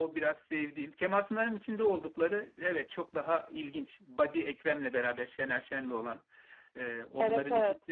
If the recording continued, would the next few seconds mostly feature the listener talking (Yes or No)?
No